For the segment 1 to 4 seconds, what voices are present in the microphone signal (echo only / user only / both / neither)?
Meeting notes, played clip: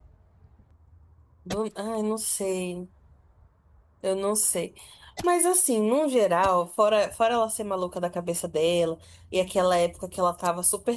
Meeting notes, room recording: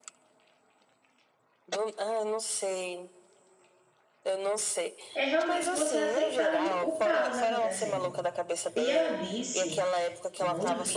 echo only